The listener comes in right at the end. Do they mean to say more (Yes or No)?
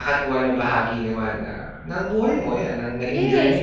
Yes